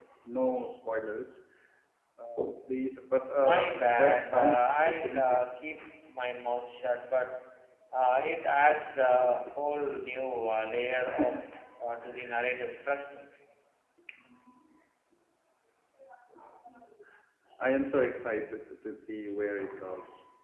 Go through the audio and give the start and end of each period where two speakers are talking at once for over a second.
3.4-5.4

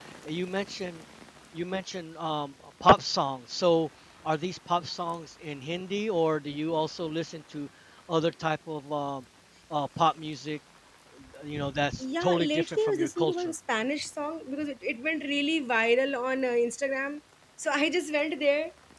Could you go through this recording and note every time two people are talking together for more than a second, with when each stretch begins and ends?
12.2-13.5

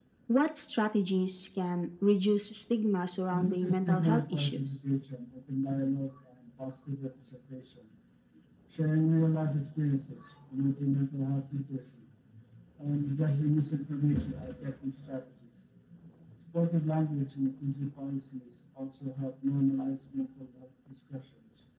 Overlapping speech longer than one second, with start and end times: 3.3-4.8

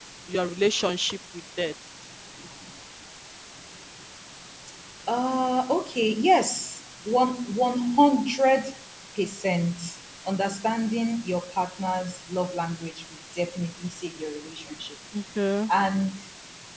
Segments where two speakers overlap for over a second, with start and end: none

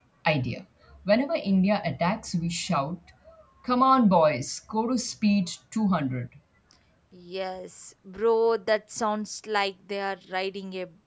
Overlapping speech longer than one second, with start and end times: none

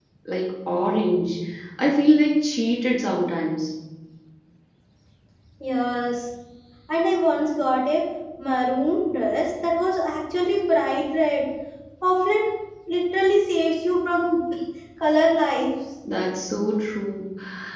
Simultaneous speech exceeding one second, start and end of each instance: none

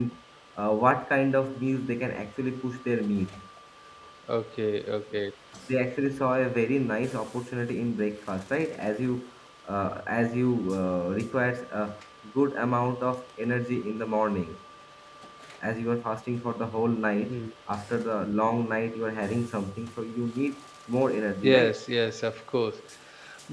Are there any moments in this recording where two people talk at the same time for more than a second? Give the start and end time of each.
none

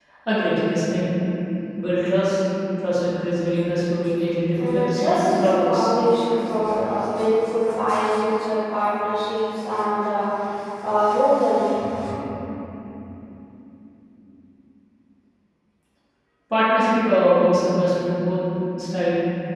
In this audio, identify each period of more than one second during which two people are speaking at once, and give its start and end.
4.6-5.9

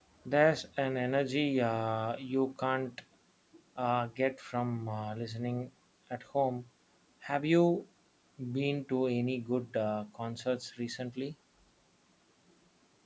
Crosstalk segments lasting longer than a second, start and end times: none

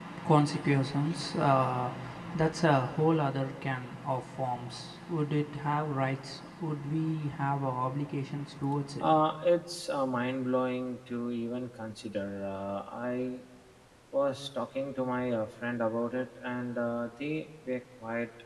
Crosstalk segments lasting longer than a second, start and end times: none

